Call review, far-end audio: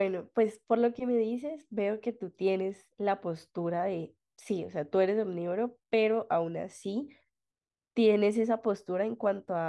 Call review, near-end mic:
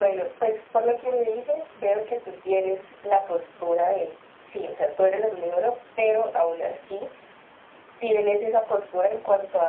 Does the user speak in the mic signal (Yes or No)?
No